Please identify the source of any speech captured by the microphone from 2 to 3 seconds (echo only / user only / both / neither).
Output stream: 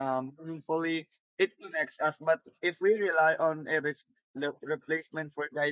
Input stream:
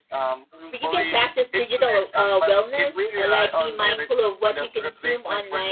both